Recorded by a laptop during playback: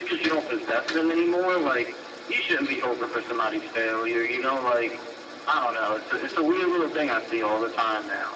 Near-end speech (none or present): none